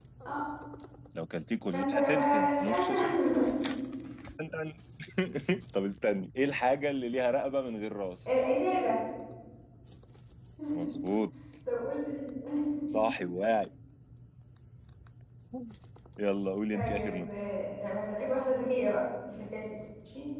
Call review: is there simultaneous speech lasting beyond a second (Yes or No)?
Yes